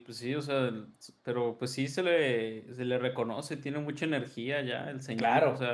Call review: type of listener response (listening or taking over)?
taking over